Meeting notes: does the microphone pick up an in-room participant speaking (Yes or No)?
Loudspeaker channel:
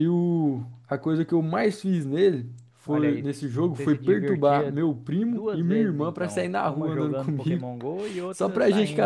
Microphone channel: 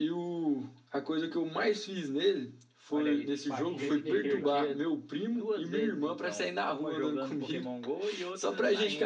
Yes